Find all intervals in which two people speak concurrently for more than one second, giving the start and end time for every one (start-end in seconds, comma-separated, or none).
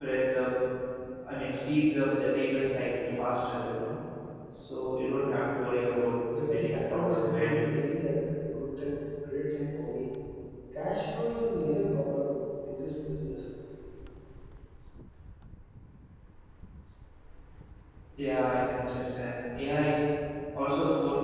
6.3-7.8